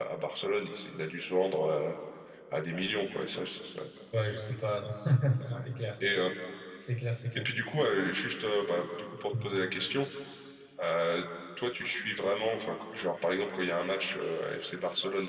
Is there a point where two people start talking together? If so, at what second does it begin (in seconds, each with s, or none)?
none